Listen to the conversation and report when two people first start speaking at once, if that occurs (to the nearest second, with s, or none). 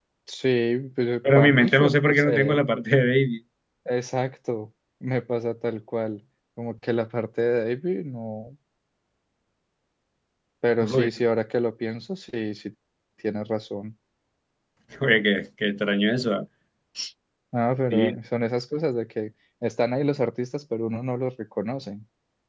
1 s